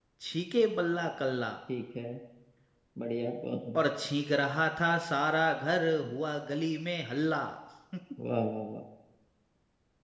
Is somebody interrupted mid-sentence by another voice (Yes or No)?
No